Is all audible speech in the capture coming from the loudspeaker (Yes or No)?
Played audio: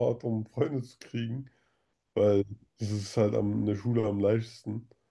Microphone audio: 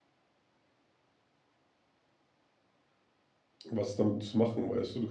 No